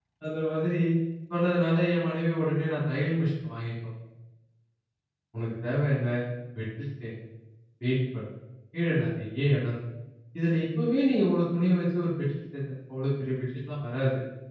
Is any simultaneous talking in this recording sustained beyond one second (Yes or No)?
No